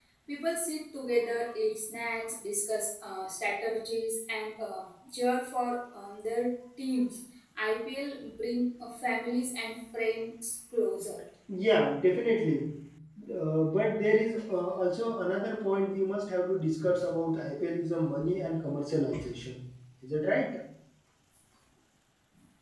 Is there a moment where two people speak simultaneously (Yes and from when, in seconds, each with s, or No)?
No